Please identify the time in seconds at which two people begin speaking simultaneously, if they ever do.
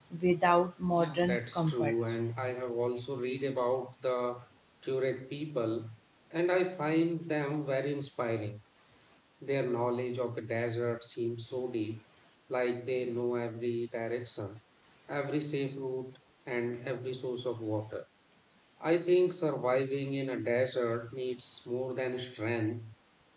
1 s

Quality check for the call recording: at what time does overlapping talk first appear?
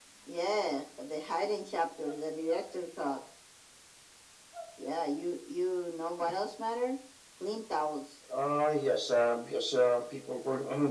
none

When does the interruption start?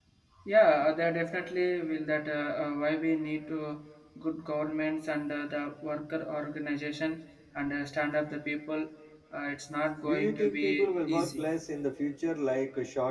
10 s

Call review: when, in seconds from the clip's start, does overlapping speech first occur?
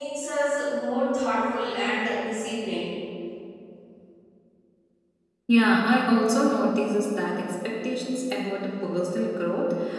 none

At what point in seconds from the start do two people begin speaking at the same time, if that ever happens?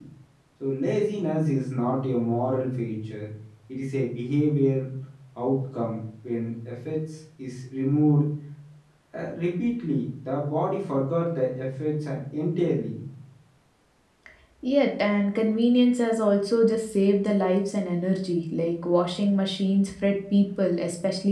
none

